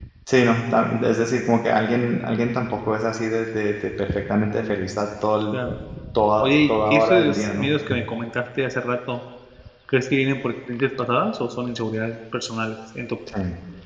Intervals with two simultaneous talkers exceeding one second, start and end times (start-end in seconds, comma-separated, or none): 6.4-7.7